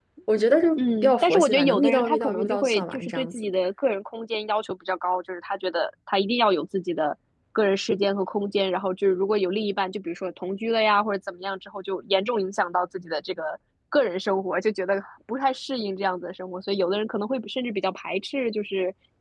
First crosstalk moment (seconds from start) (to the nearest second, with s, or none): 1 s